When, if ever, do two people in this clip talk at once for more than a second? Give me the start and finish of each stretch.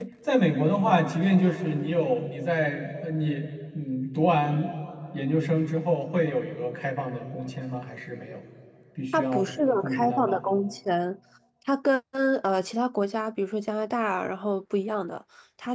9.1-10.4

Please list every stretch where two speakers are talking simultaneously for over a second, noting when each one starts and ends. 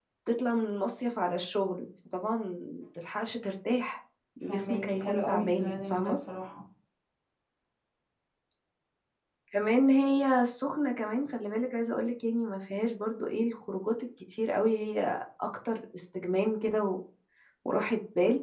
4.5-6.2

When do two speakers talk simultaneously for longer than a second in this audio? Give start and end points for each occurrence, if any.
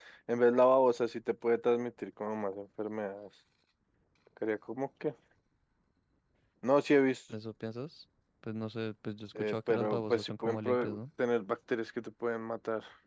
9.4-11.0

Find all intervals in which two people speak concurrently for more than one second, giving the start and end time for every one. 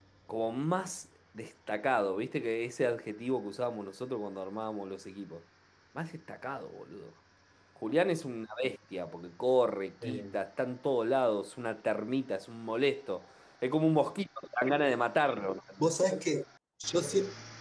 none

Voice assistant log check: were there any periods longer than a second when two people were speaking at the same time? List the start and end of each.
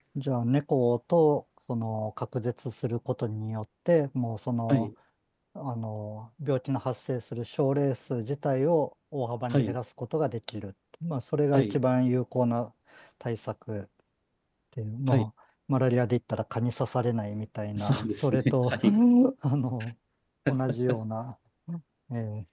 17.8-19.0

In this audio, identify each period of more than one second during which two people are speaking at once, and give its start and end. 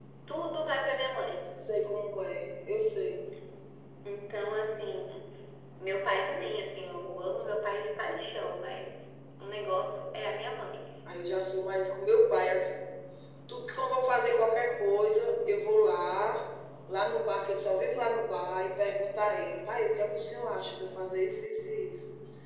none

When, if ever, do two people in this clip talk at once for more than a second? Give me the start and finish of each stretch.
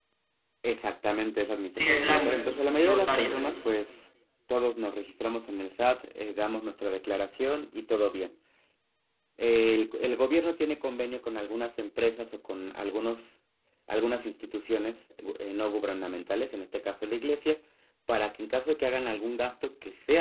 1.7-3.4

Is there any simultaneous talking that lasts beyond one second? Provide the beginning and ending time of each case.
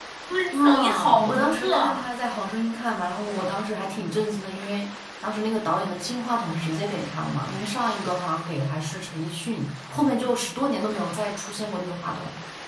0.5-2.1

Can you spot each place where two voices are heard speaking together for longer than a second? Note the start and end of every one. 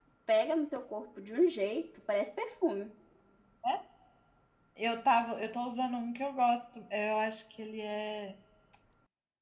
none

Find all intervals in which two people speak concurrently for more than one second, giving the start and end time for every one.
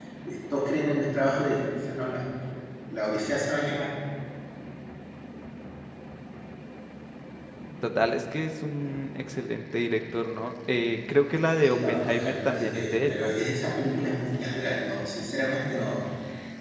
11.6-13.3

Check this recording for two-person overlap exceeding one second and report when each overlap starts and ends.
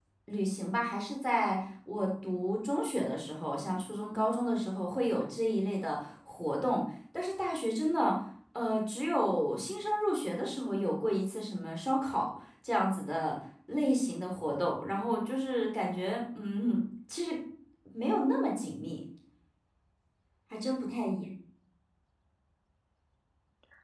none

